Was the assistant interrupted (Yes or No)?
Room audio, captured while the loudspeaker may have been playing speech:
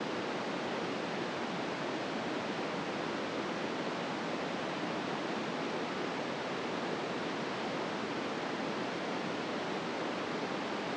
No